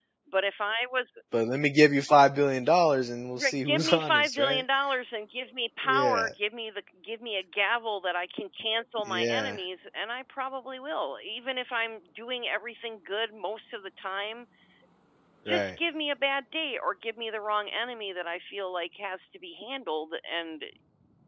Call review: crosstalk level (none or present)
present